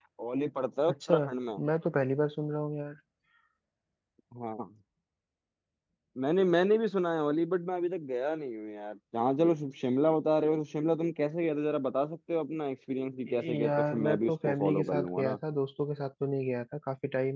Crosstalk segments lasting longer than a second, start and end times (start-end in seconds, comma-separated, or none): 13.3-15.4